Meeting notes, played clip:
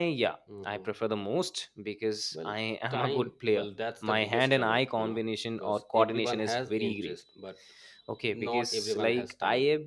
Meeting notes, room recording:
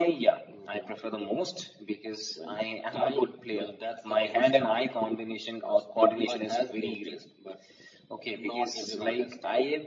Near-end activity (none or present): none